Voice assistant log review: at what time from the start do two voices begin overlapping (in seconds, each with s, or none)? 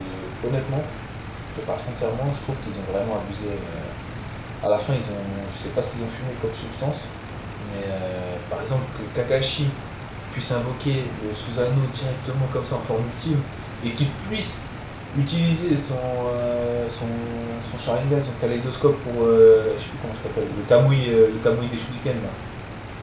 none